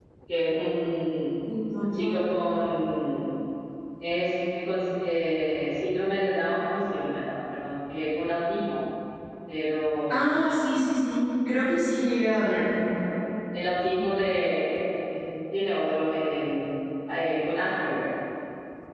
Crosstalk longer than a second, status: none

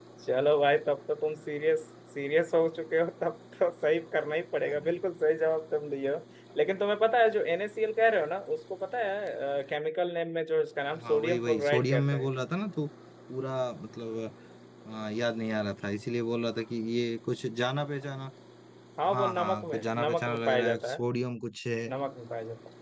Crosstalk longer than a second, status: present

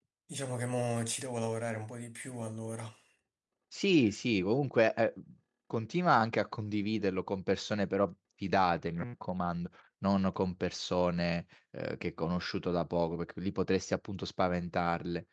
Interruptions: none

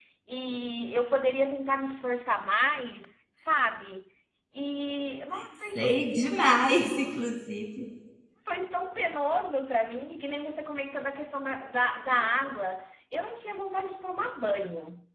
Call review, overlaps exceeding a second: none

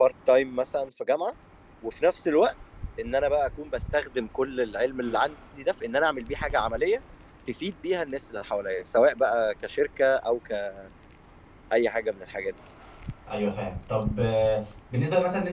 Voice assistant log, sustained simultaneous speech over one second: none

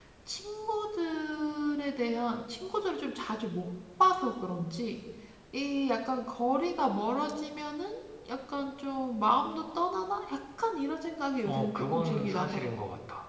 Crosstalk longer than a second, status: present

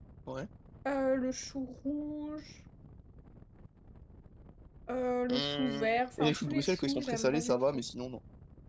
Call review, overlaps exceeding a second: present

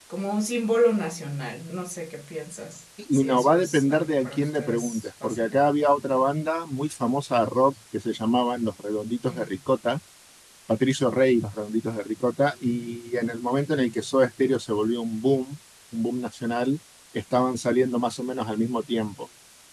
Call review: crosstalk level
present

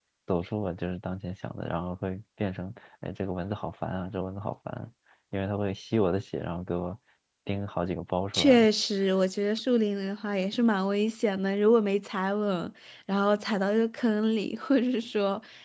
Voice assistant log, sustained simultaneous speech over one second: none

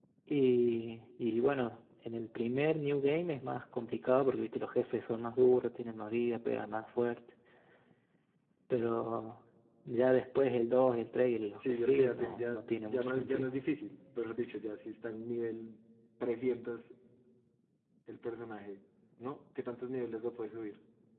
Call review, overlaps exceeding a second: present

